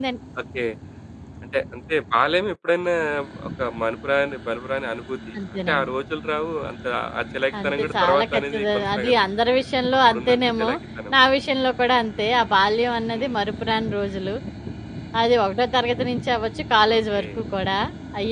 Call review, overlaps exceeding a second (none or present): present